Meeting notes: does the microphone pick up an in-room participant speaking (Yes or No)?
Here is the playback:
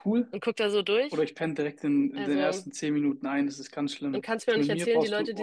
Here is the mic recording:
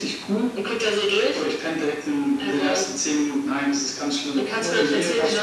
Yes